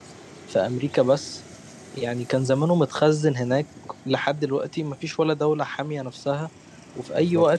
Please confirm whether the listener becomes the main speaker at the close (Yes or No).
No